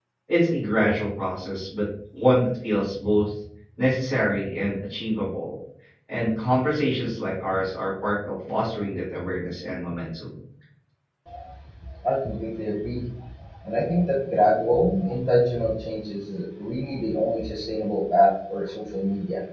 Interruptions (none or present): none